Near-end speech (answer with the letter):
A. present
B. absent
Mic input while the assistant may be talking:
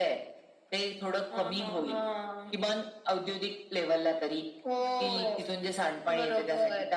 A